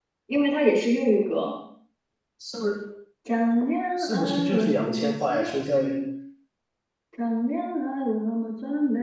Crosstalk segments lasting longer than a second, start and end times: 4.0-5.9

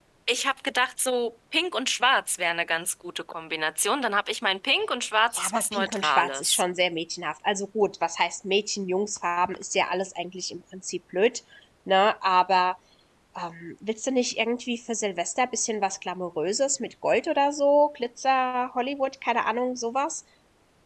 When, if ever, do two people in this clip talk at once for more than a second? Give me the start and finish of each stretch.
5.3-6.6

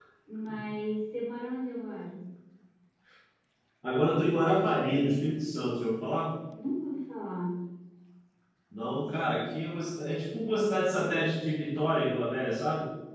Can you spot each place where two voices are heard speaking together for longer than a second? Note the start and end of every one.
none

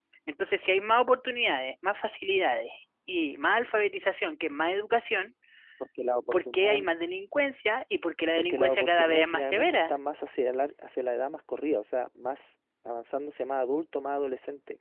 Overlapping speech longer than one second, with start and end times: 8.4-9.9

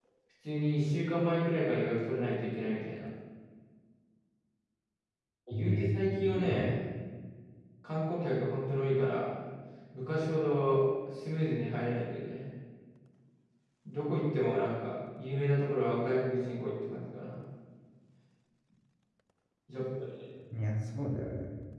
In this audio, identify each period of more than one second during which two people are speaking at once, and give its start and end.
5.5-6.8

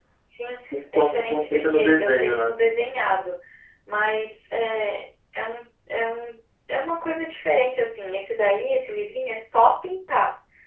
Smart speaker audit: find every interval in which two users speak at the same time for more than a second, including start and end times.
0.9-2.5

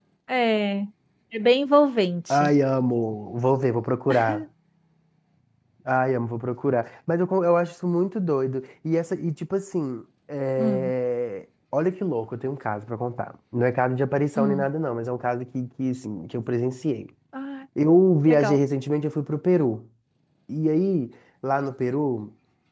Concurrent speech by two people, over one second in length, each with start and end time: none

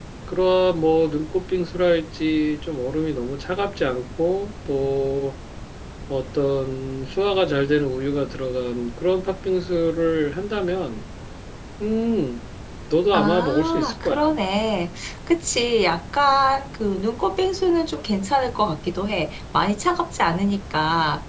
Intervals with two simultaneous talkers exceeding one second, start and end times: 13.1-14.3

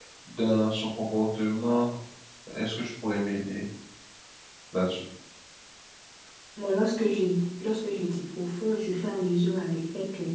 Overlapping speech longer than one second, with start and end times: none

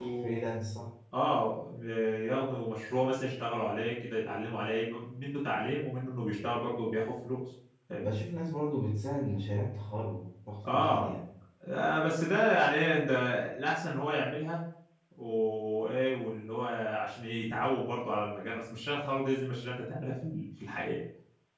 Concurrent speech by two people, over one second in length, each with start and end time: none

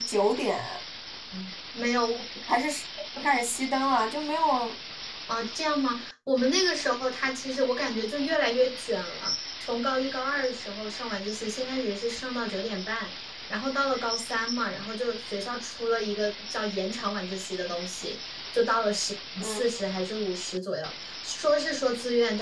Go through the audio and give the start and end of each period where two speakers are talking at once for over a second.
none

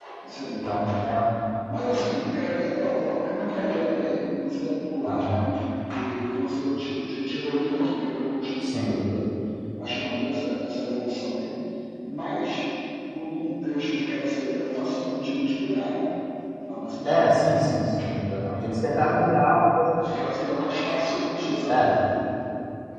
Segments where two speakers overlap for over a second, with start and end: none

